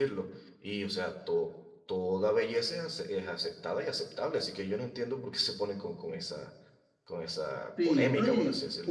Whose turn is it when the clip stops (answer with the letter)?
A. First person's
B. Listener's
B